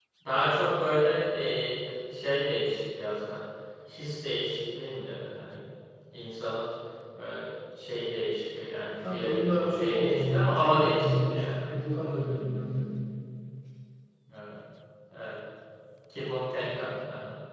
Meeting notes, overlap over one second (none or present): present